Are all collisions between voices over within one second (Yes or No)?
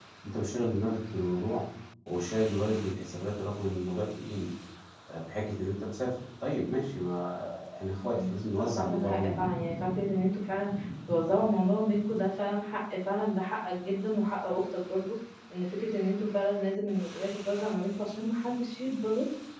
No